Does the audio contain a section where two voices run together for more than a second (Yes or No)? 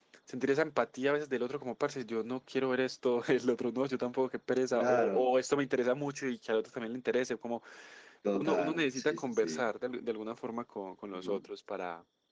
Yes